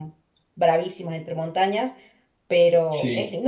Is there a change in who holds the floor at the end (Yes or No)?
No